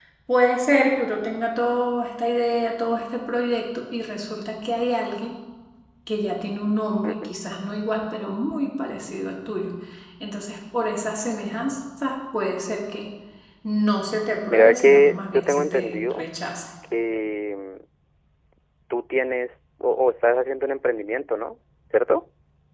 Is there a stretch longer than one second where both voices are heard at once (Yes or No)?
Yes